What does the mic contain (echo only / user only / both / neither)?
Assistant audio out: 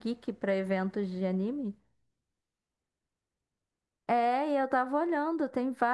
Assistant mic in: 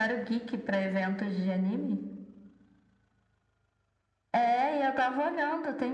echo only